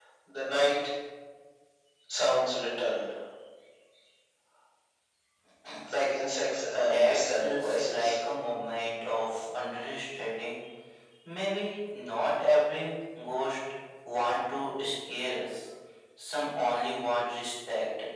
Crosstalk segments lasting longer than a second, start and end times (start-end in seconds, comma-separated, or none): 6.6-8.1